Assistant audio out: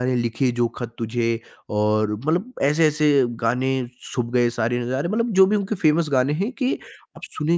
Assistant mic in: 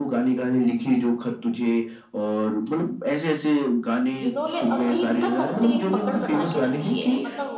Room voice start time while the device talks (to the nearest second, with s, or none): 4 s